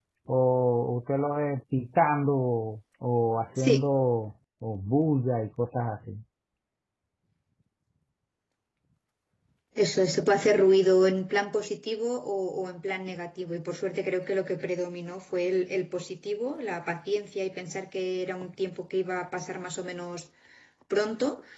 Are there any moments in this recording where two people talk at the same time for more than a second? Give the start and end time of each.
none

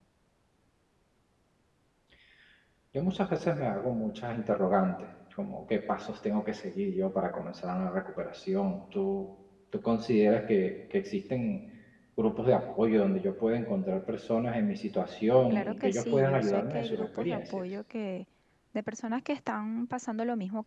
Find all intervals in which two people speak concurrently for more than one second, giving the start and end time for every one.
15.5-17.6

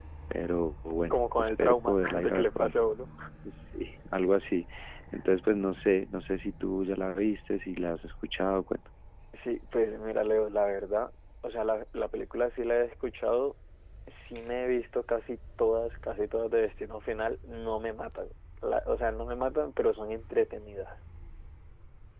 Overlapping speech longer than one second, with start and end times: 1.1-2.8

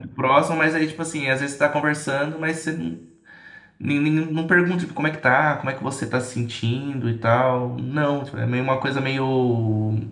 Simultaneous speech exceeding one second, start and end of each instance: none

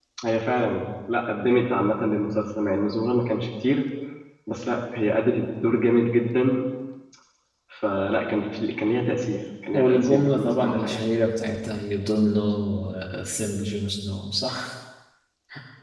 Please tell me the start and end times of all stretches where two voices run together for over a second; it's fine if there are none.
9.7-11.0

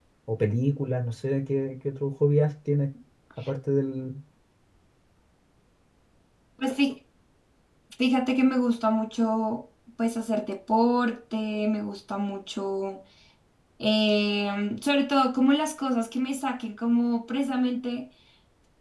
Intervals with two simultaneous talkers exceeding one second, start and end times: none

